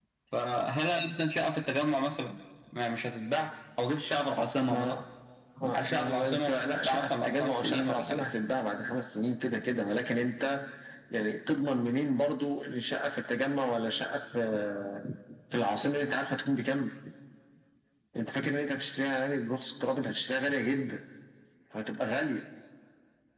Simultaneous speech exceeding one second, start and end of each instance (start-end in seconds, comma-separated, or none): 5.7-8.2